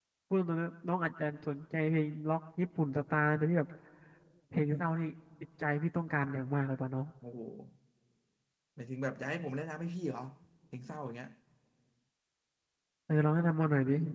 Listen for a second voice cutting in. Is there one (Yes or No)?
No